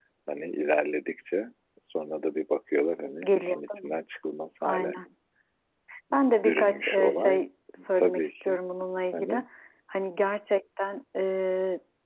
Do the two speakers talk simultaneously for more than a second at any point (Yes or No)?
Yes